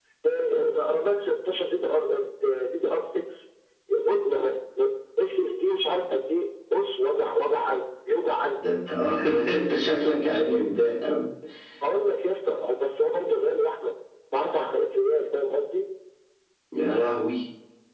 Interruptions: none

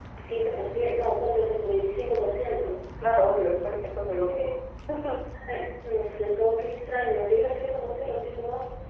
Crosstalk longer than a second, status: none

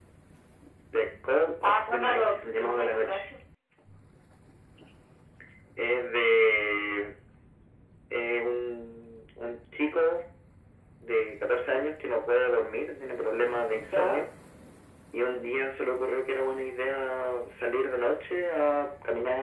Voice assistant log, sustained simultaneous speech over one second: present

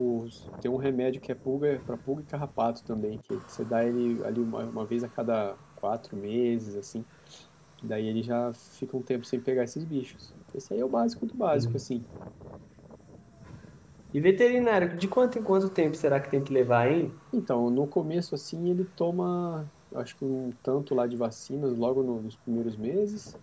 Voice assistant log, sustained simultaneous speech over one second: none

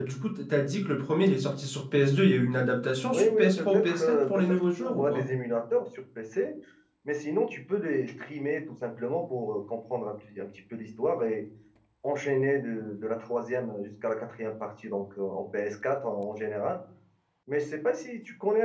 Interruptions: present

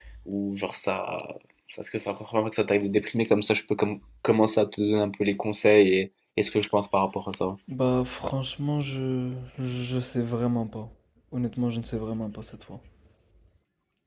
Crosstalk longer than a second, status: none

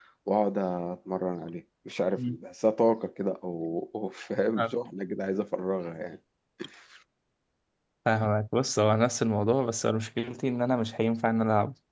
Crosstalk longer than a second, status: none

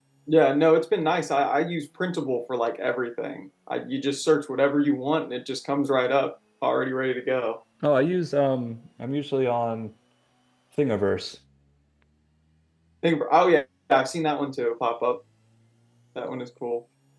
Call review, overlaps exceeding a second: none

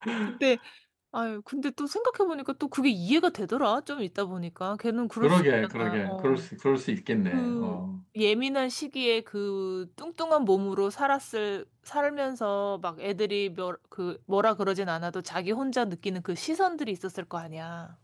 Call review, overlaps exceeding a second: present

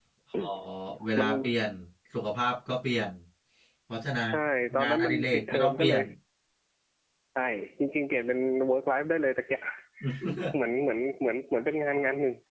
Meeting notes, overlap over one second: present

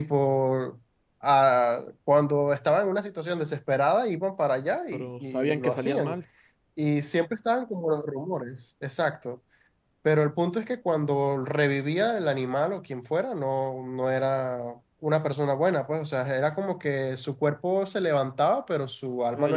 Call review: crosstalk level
present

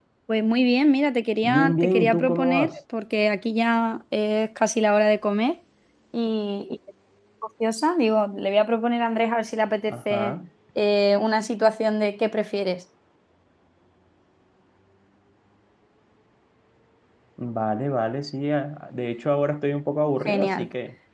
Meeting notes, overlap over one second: present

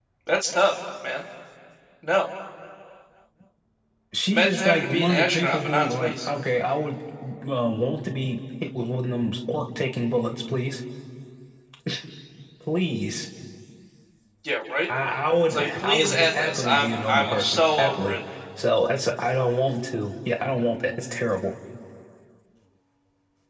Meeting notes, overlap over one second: present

